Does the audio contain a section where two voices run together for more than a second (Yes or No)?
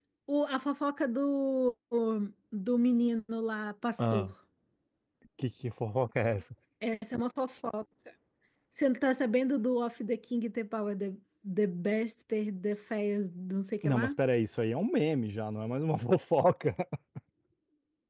No